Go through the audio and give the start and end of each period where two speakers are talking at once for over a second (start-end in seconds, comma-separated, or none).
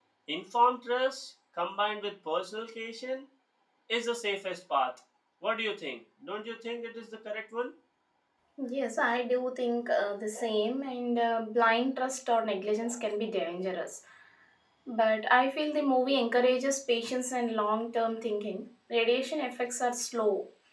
none